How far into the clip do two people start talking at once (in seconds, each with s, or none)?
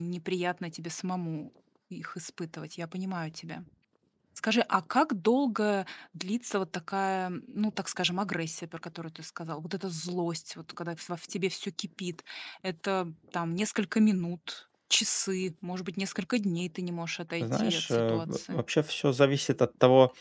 17.4 s